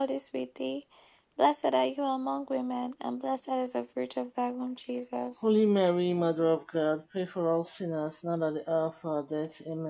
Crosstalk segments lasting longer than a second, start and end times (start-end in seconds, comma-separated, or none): none